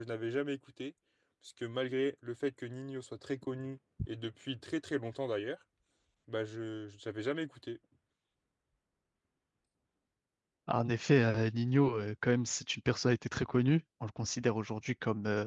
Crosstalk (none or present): none